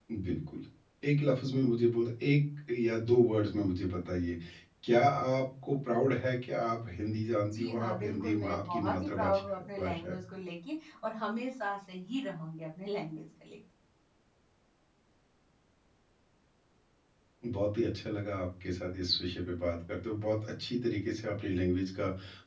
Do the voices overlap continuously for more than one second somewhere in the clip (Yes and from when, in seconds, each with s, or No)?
Yes, from 7.5 s